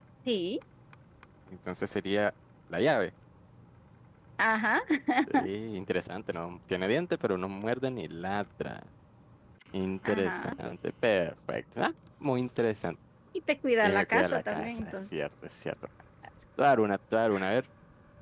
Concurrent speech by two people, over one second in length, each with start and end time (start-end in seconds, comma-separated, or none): 13.8-15.1